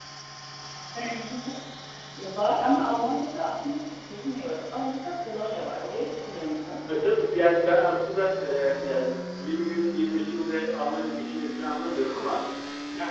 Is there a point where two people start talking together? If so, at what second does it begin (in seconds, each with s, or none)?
none